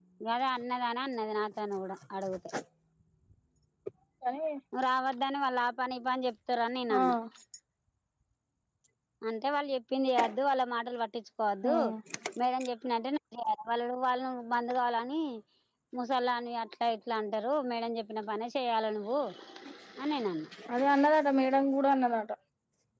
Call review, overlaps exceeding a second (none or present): none